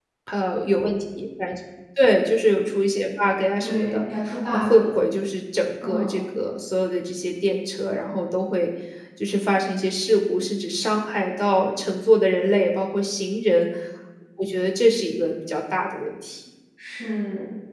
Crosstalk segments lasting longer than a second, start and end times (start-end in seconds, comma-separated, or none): none